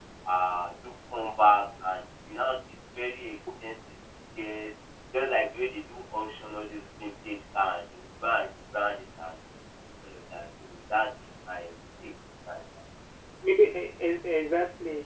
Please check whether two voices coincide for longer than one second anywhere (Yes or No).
No